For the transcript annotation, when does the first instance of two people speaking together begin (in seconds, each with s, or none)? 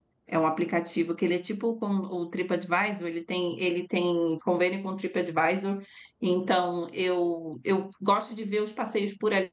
none